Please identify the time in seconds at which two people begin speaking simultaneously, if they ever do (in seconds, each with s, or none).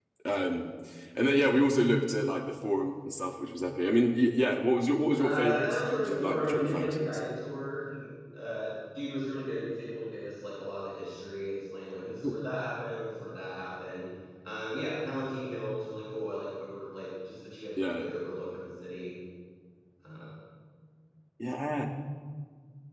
5.2 s